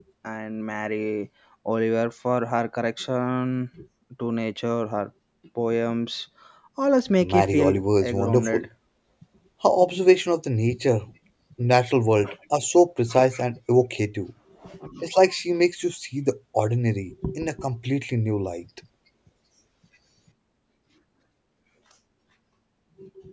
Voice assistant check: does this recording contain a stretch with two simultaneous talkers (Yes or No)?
Yes